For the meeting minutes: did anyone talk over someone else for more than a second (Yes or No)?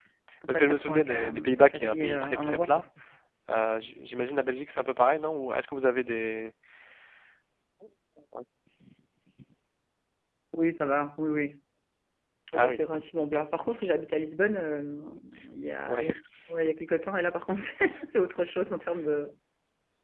Yes